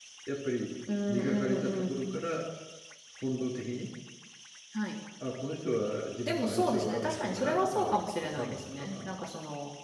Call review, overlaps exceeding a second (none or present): present